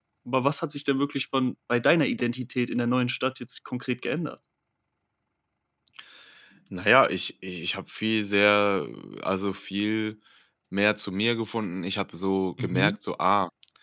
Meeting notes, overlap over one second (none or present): none